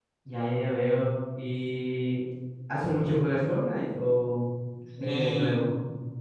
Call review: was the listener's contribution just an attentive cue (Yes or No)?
No